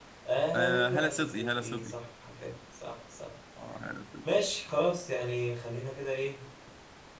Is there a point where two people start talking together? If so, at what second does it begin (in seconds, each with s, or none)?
0.5 s